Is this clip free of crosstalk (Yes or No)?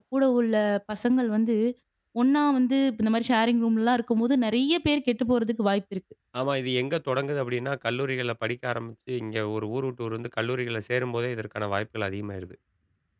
Yes